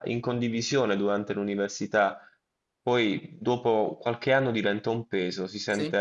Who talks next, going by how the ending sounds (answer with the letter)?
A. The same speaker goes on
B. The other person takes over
A